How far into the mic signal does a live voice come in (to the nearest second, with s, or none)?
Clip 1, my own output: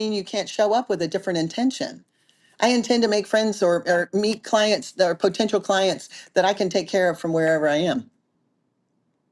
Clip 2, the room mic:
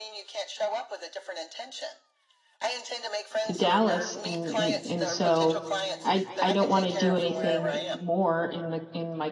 3 s